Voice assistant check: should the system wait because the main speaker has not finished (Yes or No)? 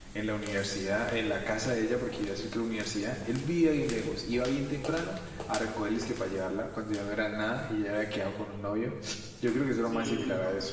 No